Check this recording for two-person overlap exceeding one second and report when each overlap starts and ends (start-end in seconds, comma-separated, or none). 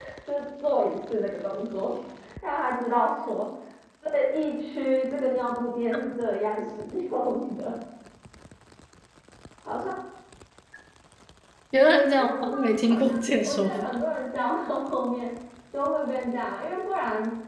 12.2-13.9